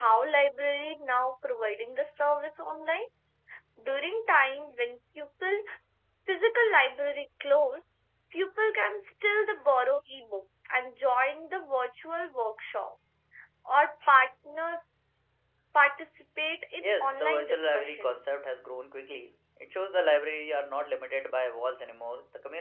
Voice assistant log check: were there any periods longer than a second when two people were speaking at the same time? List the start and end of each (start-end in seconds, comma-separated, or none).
16.8-18.1